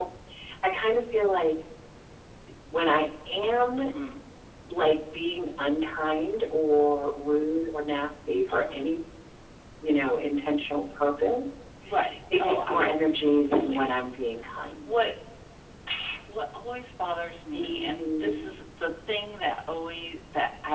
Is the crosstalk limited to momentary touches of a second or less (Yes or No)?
No